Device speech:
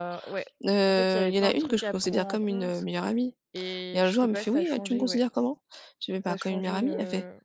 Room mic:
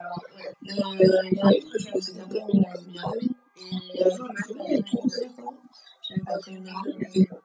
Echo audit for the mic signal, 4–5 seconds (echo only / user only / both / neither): echo only